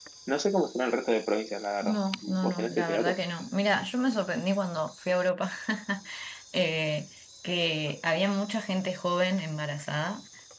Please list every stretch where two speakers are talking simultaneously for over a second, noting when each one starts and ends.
1.8-3.2

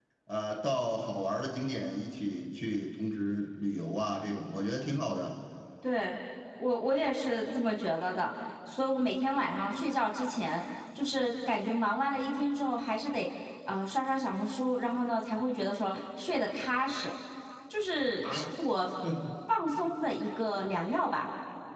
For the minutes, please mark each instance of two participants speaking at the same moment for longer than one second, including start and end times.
none

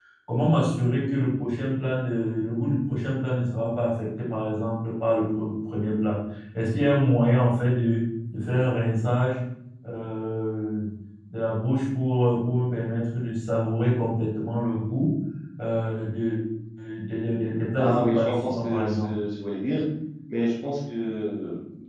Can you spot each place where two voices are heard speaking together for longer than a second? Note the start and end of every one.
17.7-19.1

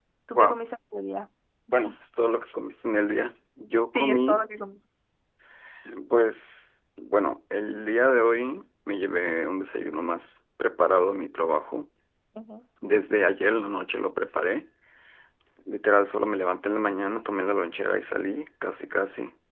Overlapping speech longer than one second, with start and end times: none

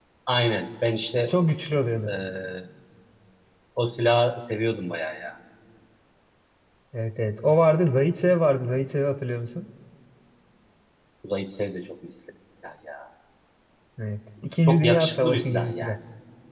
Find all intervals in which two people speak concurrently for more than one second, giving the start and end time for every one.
14.7-16.0

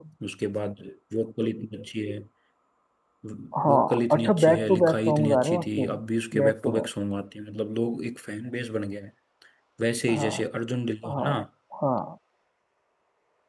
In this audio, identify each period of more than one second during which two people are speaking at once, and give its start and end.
3.7-5.9

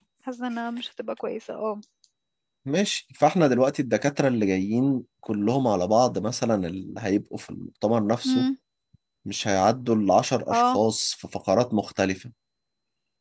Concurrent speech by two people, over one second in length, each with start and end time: none

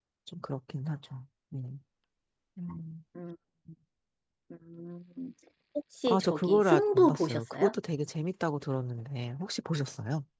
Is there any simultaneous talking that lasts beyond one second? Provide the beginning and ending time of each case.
6.1-7.7

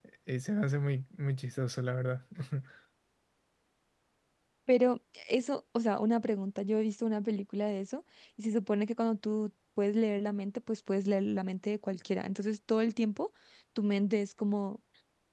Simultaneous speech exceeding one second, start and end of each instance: none

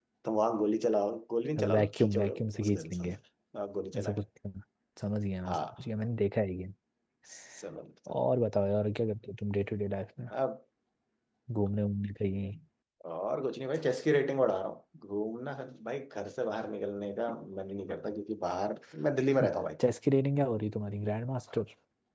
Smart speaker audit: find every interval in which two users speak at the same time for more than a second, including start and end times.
1.6-3.0

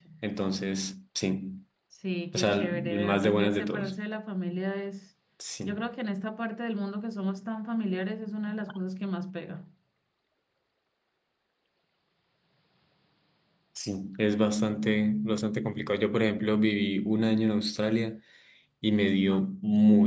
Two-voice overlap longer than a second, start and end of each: 2.3-4.0

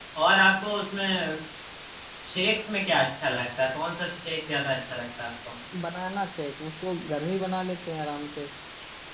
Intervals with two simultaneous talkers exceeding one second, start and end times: none

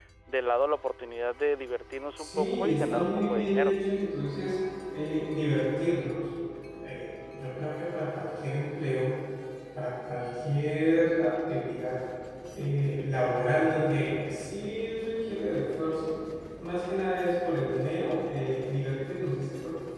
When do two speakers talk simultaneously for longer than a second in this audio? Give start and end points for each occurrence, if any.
2.2-3.7

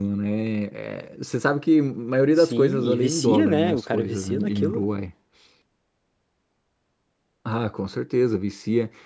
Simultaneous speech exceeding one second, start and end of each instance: 2.4-4.8

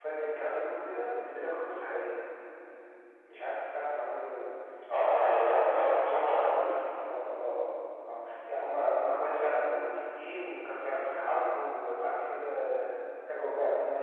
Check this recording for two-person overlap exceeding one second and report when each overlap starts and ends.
5.1-6.7

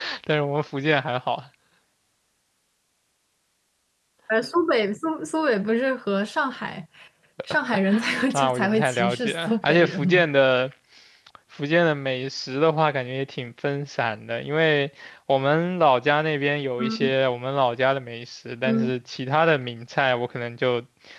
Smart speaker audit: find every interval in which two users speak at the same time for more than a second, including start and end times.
8.3-10.2

